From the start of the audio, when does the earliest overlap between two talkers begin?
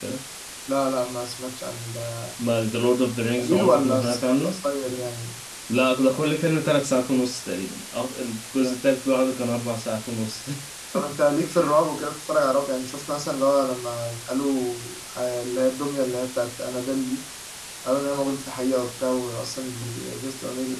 3 s

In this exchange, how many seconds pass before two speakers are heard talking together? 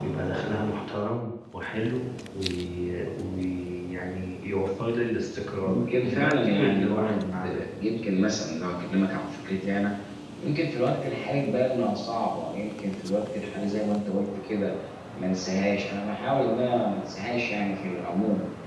6 s

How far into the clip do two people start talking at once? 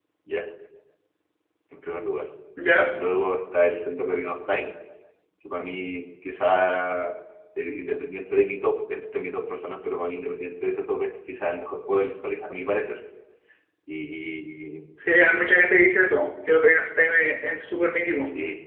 none

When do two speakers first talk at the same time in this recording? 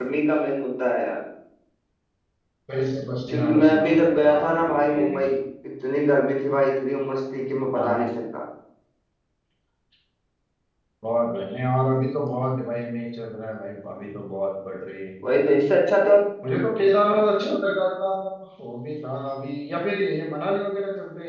3 s

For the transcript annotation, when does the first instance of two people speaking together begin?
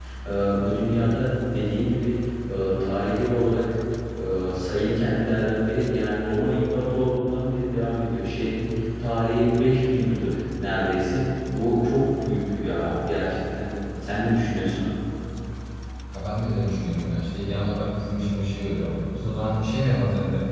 none

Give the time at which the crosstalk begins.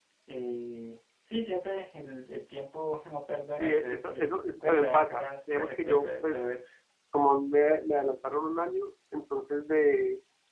4 s

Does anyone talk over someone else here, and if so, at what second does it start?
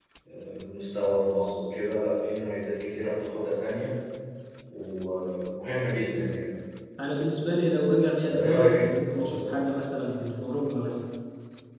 8 s

